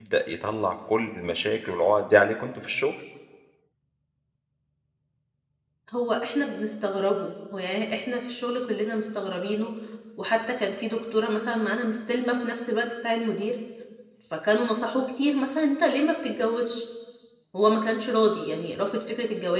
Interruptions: none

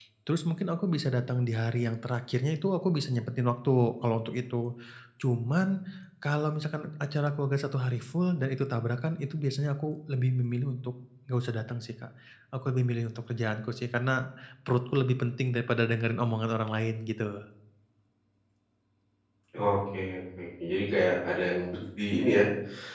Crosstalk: none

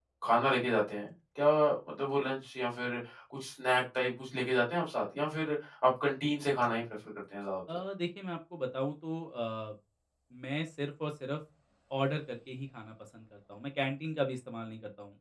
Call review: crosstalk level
none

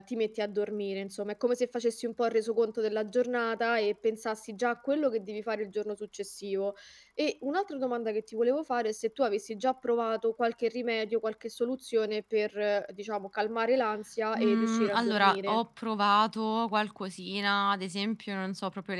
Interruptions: present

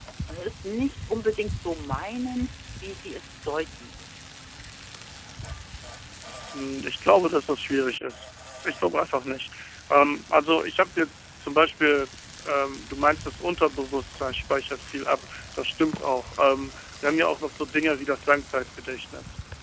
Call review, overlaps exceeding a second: none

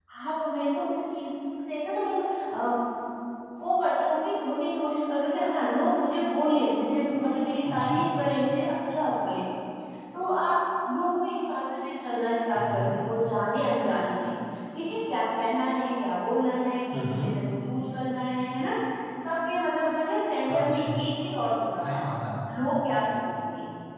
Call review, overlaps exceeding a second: none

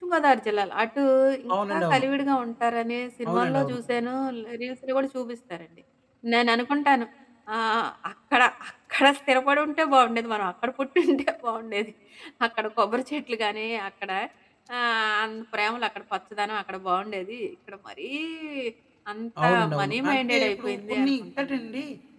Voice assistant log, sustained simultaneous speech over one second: present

